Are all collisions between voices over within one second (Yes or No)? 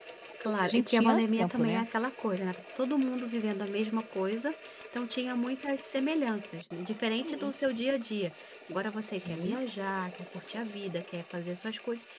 No